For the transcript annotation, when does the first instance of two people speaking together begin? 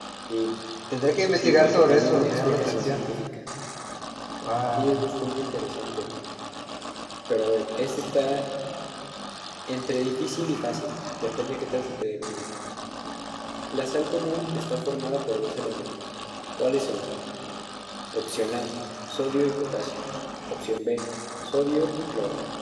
1.3 s

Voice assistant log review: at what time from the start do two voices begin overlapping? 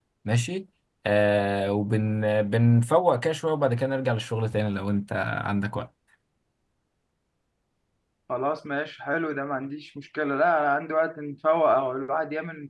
none

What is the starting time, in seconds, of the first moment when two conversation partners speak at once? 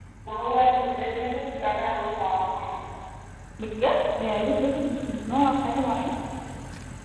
none

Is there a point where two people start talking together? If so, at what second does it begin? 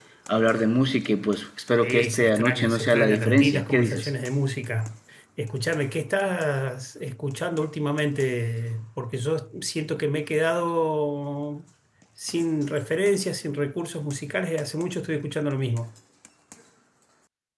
1.8 s

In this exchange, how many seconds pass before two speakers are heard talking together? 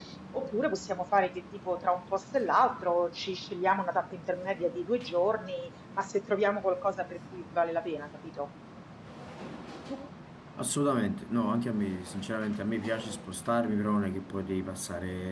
none

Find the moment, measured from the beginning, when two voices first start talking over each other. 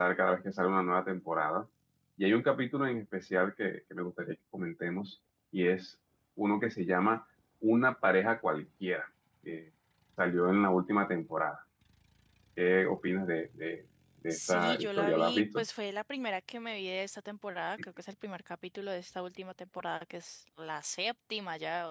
14.3 s

